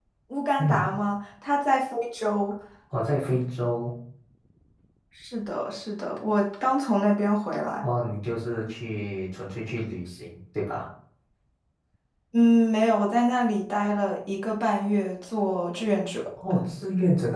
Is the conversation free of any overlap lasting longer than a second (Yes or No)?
Yes